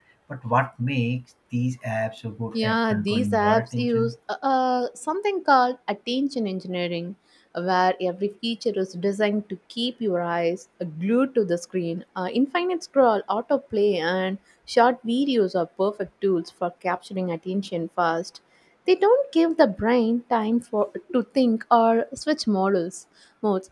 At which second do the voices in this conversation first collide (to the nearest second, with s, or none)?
3 s